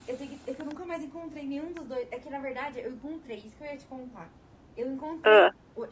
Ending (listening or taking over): listening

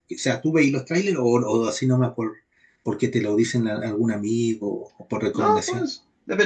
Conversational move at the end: taking over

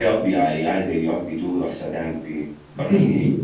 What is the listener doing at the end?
taking over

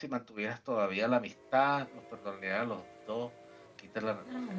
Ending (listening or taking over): taking over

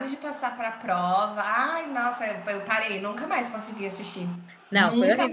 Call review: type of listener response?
taking over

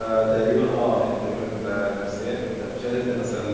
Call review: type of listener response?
taking over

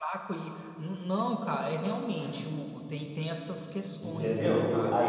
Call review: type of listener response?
taking over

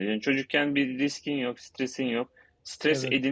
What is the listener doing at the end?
listening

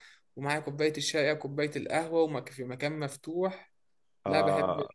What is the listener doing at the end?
taking over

